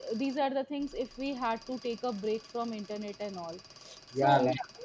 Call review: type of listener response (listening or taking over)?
taking over